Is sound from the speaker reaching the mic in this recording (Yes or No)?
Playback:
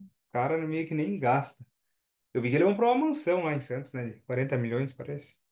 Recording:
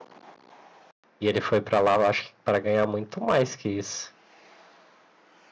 No